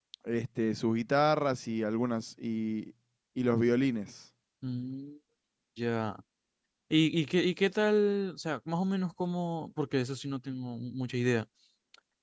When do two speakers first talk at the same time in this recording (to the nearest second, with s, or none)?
none